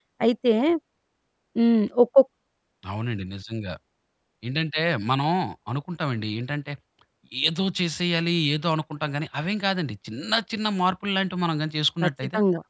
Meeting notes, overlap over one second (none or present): none